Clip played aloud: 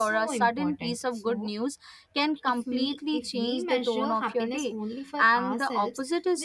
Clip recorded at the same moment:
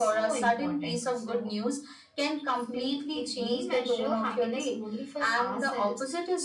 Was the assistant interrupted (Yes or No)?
No